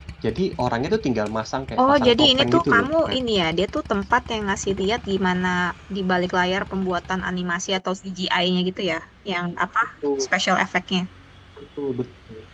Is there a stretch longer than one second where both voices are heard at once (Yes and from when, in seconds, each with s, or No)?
Yes, from 1.8 s